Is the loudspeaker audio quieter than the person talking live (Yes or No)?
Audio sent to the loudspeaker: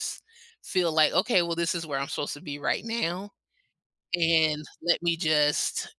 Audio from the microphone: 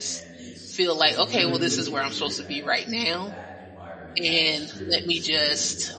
No